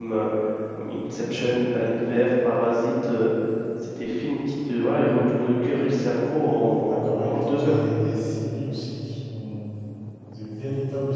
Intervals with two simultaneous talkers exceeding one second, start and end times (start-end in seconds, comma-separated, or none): 6.4-7.8